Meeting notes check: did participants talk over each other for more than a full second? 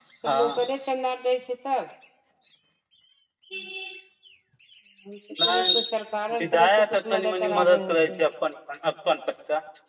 Yes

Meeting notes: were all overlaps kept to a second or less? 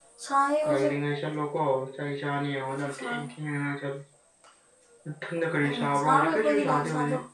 No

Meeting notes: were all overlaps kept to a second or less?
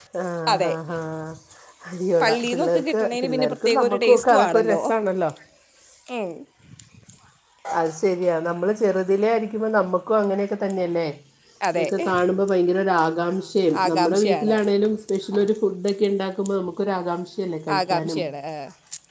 No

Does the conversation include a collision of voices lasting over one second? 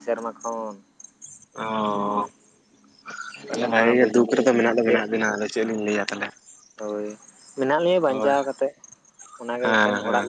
Yes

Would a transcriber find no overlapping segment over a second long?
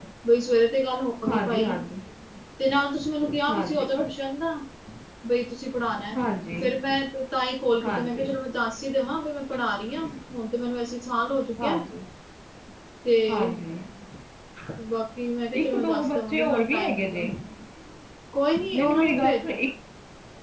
No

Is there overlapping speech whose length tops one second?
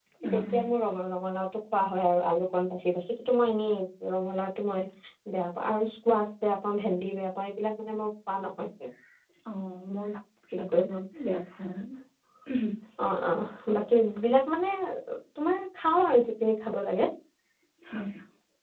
No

